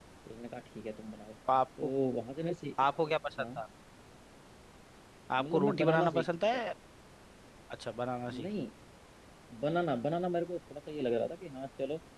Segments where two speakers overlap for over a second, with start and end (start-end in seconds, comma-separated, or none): 5.4-6.6